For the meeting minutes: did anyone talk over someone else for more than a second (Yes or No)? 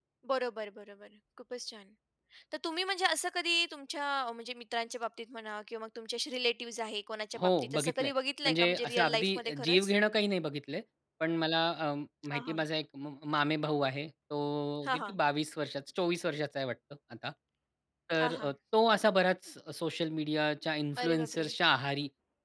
Yes